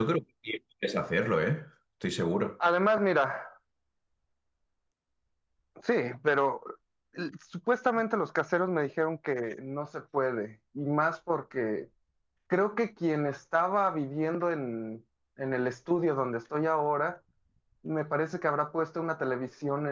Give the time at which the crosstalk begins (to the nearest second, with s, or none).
none